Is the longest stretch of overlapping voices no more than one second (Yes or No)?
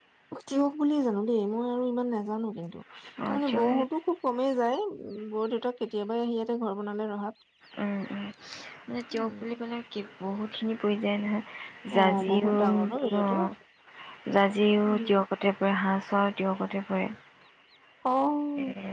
No